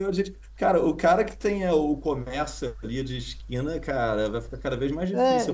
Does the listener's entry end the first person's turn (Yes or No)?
Yes